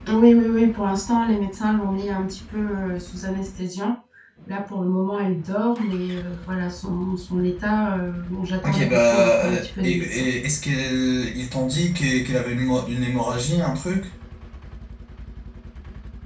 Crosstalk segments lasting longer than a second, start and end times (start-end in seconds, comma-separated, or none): 8.7-10.2